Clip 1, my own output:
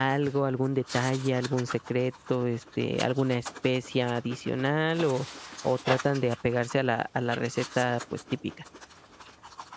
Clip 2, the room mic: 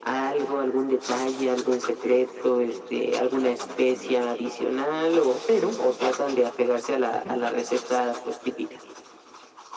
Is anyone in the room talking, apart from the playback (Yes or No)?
Yes